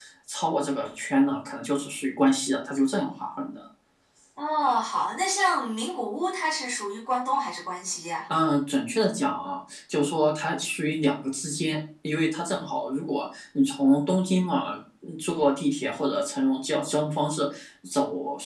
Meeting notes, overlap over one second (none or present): none